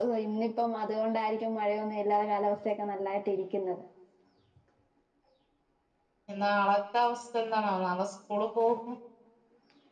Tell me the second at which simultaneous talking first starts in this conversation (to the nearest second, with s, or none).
none